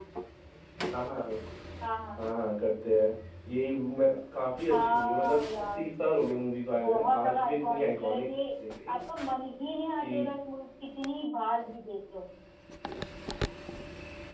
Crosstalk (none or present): present